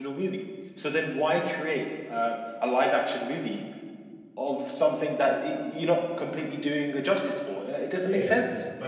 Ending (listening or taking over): taking over